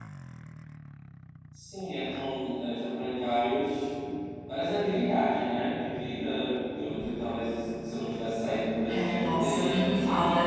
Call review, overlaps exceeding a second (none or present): present